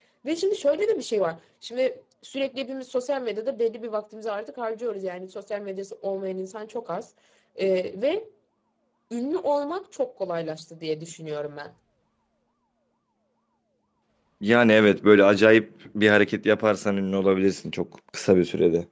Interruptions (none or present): none